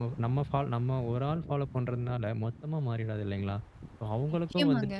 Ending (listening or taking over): listening